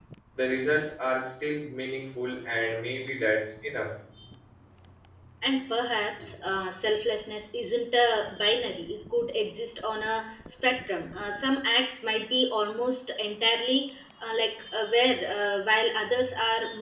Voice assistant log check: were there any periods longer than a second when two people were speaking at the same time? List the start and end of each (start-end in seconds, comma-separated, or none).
none